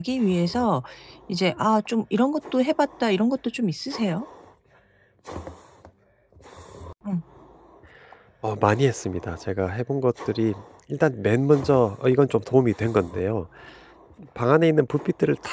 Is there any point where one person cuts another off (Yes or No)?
No